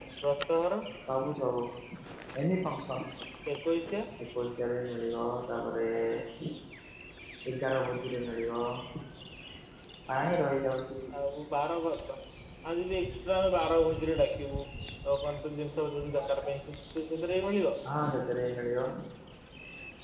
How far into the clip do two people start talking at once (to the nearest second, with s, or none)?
none